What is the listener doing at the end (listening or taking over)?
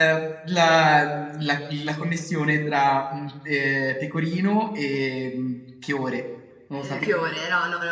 taking over